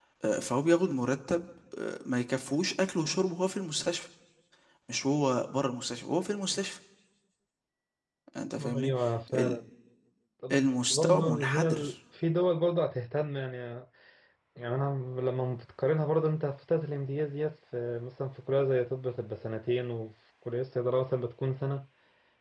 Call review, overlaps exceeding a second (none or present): present